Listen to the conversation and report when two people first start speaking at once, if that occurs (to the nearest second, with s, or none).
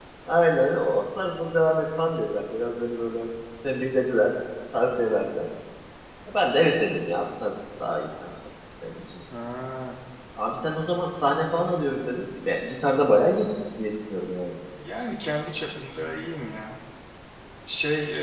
none